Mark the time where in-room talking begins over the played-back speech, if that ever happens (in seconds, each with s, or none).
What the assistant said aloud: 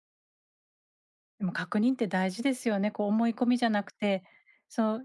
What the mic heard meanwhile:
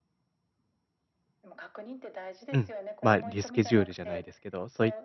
2.5 s